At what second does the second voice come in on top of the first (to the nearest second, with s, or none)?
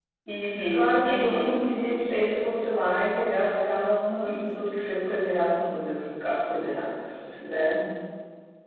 1 s